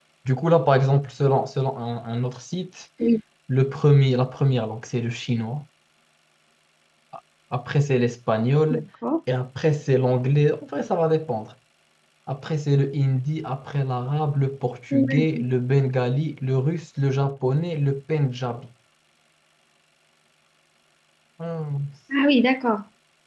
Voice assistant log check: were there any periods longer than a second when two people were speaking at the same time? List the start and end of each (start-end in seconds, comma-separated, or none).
none